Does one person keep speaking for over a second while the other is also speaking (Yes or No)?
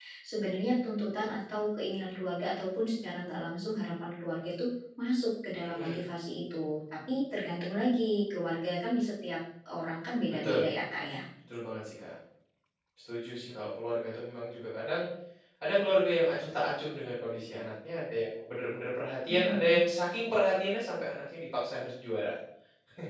No